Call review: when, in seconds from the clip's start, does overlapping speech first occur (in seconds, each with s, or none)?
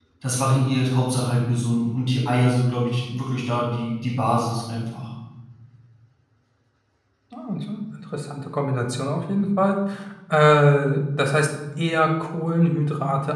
none